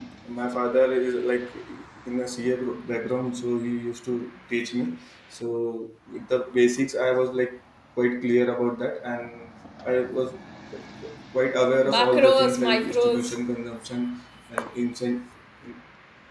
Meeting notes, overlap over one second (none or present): present